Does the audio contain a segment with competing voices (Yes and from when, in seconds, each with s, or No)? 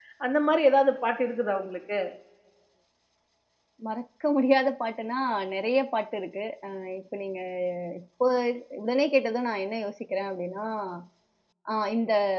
No